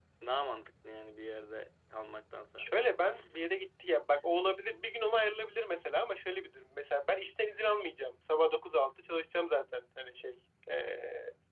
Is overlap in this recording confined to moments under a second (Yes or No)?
Yes